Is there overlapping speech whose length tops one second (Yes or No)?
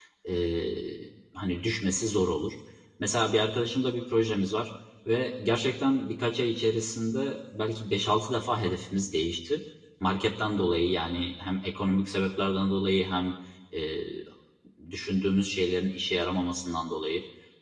No